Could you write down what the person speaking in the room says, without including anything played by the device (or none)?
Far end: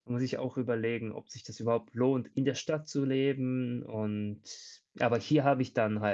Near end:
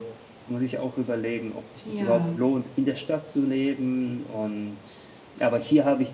Ja.